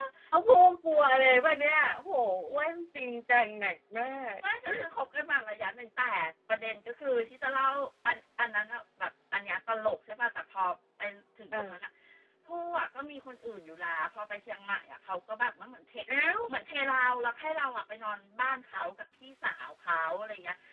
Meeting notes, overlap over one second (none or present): none